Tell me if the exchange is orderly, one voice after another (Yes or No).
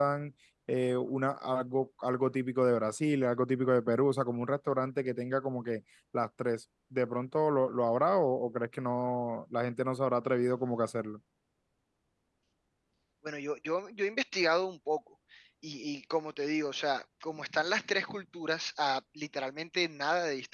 Yes